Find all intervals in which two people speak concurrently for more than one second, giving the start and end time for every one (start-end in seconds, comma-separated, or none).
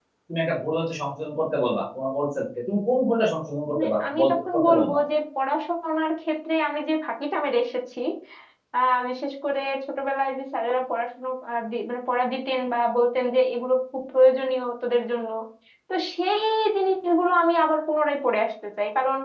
3.8-5.0